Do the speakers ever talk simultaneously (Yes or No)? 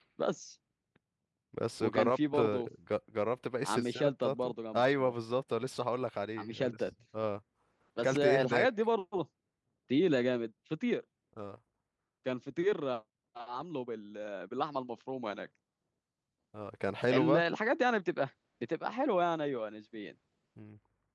Yes